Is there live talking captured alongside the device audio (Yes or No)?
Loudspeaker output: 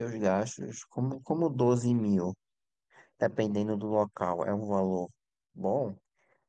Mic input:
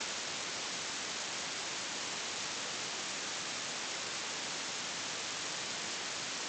No